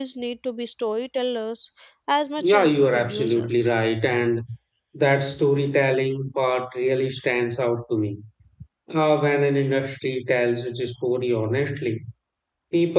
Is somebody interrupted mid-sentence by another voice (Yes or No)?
Yes